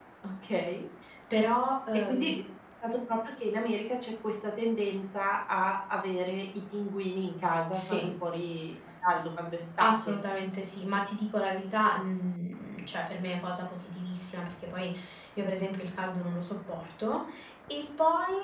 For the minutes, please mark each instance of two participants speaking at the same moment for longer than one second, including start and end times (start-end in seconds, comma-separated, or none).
none